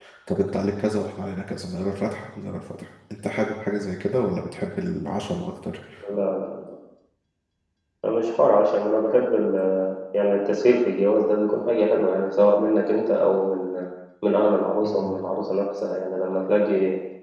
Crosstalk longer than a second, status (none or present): none